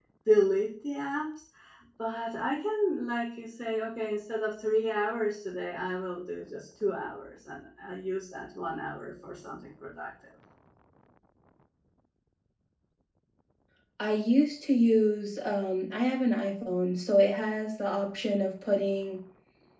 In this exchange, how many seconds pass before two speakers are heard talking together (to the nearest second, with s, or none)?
none